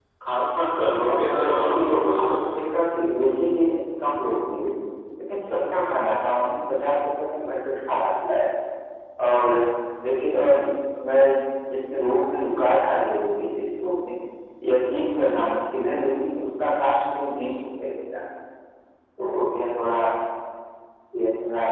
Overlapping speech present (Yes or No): Yes